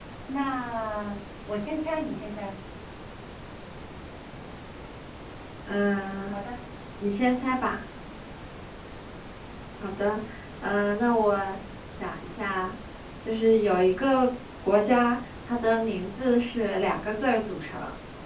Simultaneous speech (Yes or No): No